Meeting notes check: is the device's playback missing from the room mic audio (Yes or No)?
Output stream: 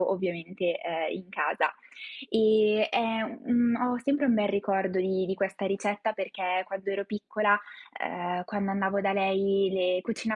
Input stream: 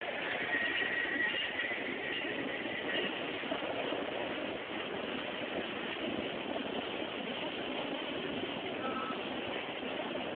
Yes